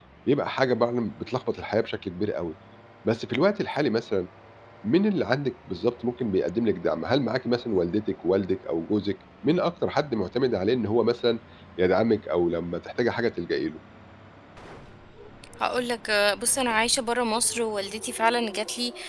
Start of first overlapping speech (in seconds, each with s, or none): none